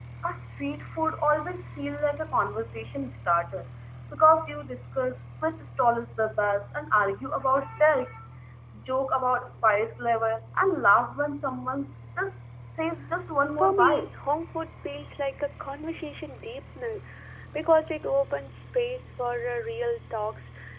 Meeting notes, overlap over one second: none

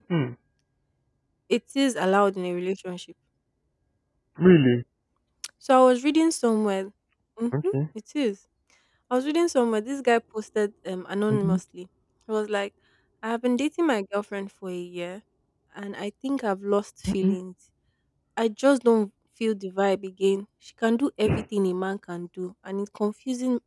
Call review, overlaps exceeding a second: none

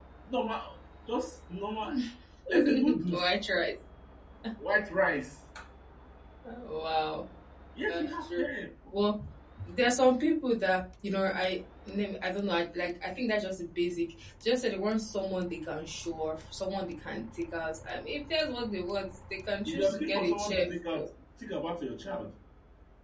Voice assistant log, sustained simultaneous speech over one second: present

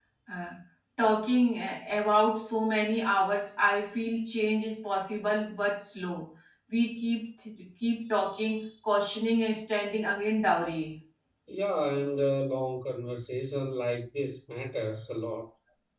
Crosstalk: none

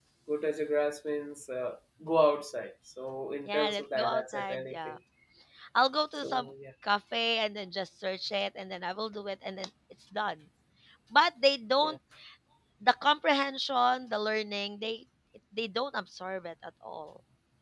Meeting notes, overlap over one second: present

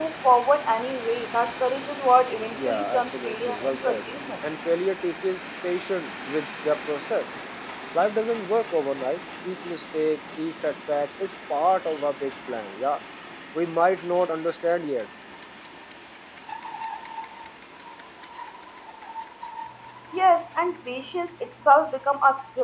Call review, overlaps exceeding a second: present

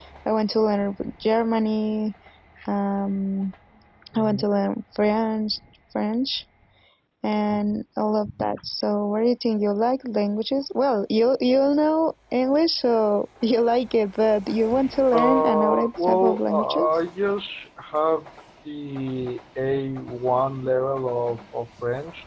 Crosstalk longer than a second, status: present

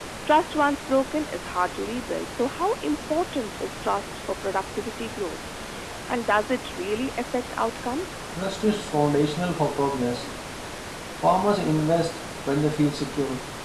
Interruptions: none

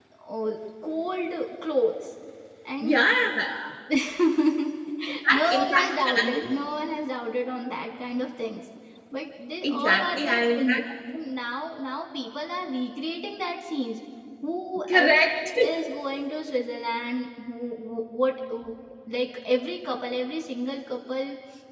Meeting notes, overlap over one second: present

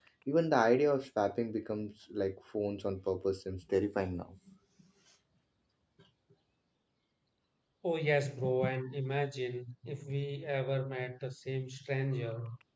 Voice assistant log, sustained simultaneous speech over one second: none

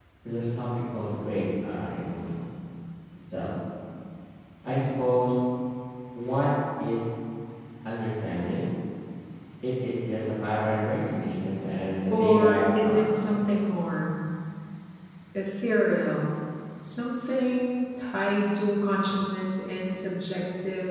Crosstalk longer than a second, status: present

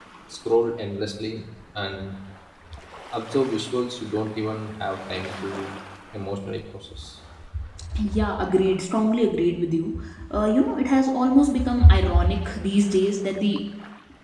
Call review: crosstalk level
none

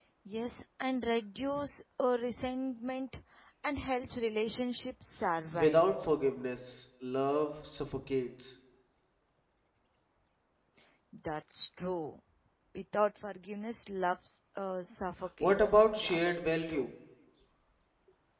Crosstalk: present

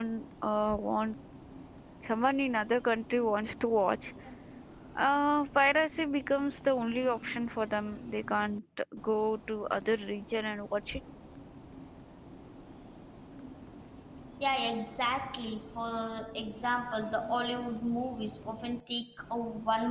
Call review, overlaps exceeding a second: none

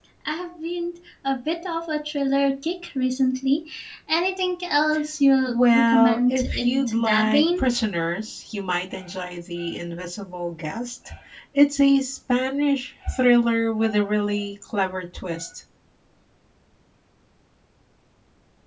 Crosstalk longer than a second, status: present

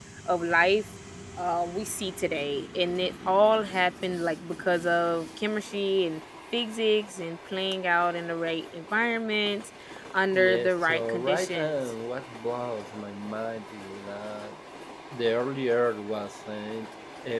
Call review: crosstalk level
present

